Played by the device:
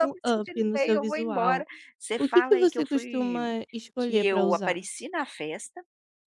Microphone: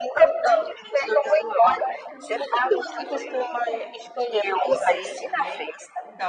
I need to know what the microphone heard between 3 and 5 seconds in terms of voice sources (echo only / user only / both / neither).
both